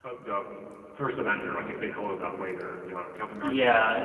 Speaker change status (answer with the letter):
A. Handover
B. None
A